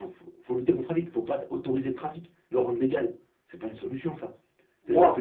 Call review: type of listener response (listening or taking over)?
listening